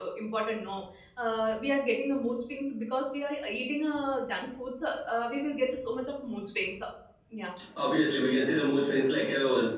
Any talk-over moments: No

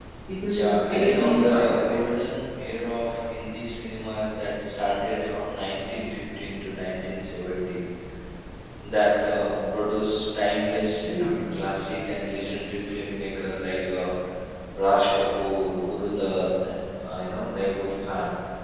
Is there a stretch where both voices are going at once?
Yes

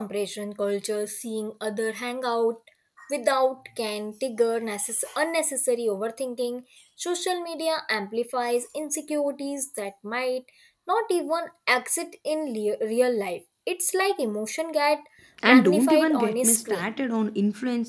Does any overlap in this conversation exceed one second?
Yes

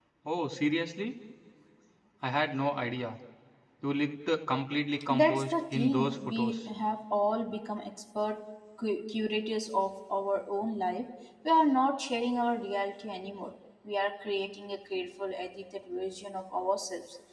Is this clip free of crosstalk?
No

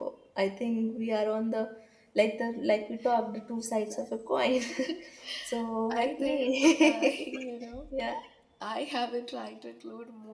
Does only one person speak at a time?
No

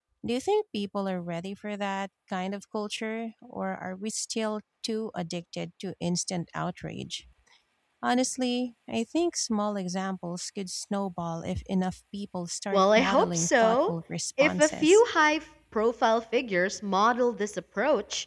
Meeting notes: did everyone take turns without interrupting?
No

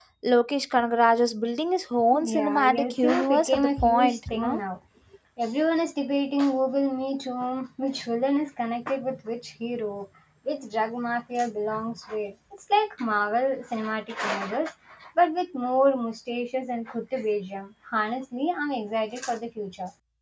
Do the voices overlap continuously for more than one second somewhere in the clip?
Yes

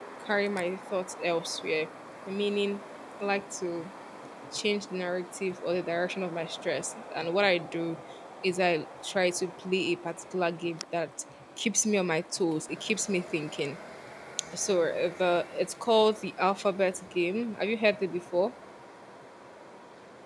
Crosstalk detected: No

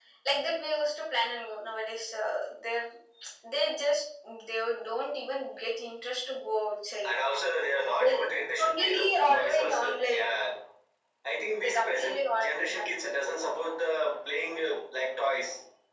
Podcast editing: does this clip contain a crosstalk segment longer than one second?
Yes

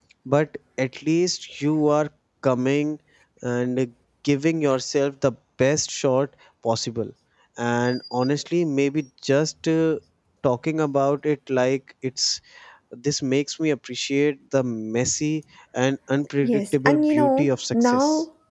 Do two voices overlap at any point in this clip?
Yes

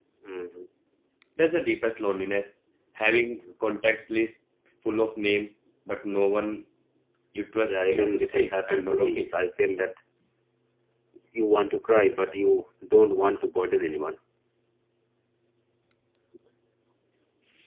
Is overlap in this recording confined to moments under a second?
No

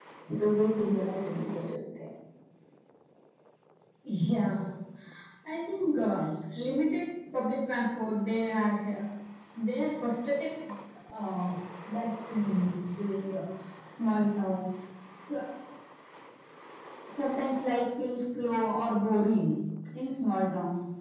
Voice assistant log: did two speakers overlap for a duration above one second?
No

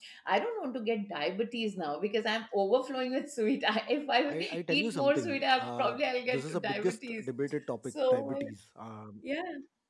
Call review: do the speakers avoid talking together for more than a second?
No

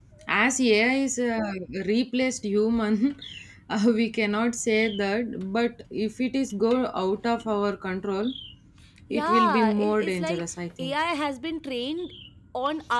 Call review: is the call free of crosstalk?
No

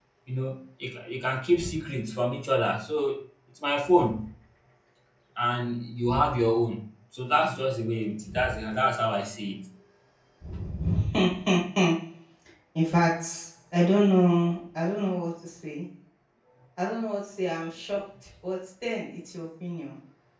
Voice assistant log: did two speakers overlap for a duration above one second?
No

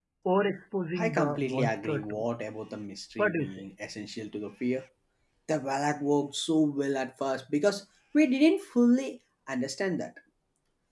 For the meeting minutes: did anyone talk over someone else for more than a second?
Yes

